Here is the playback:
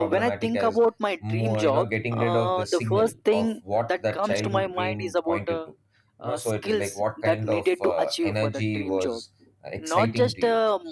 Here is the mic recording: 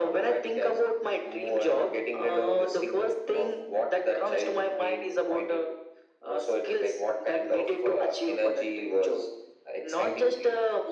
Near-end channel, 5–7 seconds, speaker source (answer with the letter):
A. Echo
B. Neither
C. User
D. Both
A